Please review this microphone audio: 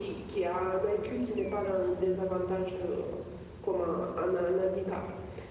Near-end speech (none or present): none